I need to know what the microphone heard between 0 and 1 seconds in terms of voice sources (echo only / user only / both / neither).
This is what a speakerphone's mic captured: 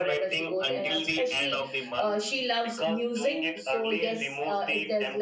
both